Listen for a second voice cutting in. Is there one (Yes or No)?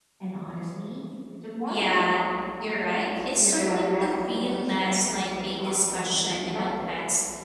Yes